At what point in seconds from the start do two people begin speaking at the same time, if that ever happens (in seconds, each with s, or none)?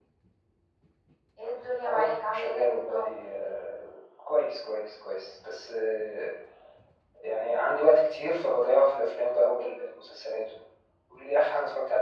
1.8 s